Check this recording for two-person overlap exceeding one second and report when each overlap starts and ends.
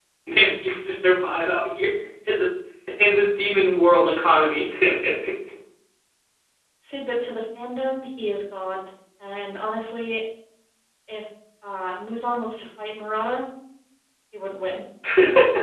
none

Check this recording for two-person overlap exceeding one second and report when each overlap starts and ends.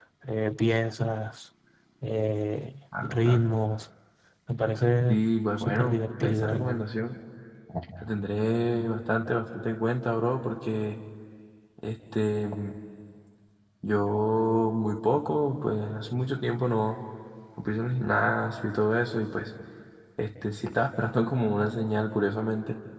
5.6-6.8

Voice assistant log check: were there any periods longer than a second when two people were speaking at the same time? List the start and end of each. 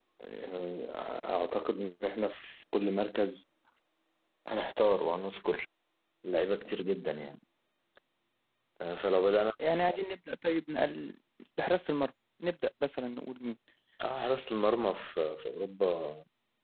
none

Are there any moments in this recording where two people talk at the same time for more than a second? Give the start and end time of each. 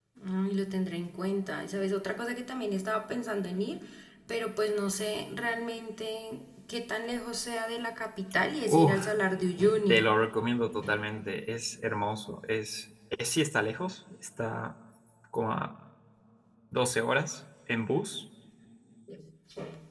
none

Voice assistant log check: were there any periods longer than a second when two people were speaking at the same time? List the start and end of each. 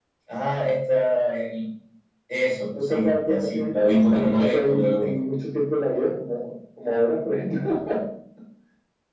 2.8-5.2

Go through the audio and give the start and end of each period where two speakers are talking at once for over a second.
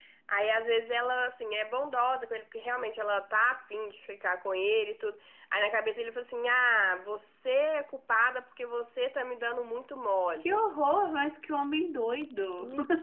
none

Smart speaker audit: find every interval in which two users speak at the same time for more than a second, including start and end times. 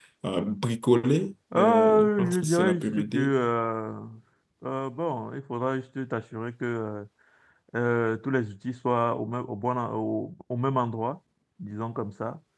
1.6-3.3

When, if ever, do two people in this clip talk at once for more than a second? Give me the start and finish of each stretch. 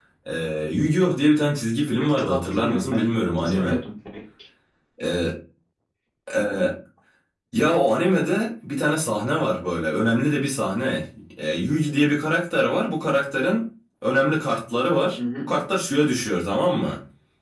1.9-3.8

